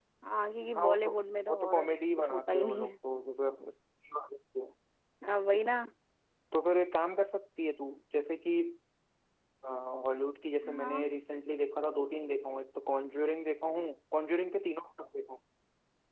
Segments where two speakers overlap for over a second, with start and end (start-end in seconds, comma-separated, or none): 1.5-2.9